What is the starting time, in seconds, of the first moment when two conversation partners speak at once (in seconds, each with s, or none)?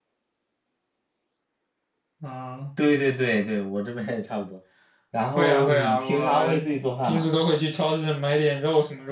5.3 s